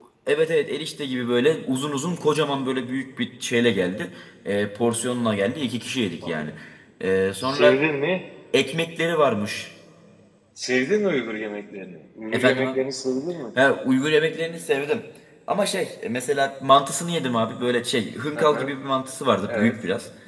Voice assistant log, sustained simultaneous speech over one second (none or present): none